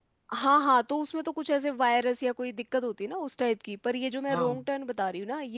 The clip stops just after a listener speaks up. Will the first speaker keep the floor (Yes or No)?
Yes